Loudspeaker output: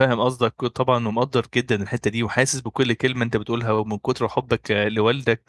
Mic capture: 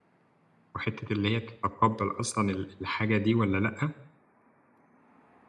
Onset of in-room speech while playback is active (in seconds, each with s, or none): 0.8 s